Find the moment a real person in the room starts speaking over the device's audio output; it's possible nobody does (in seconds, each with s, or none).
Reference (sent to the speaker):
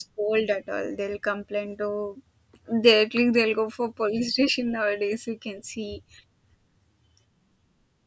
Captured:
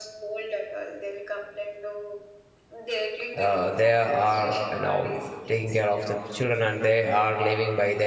3.4 s